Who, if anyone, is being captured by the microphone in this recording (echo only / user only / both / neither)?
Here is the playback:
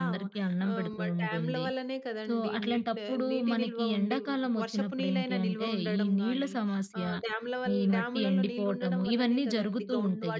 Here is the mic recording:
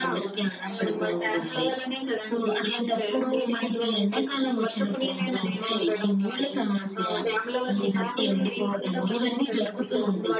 echo only